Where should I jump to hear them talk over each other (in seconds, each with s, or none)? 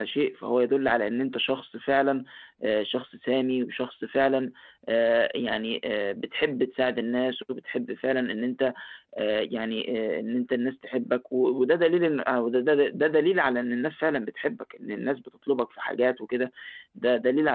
none